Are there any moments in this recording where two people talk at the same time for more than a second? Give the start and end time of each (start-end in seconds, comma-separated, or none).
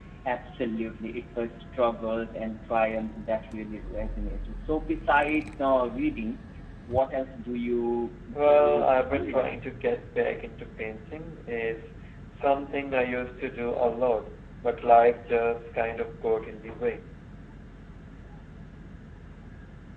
8.3-9.6